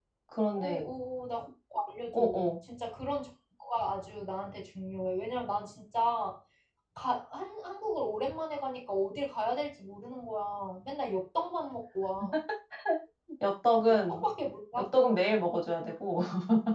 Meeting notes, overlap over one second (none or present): none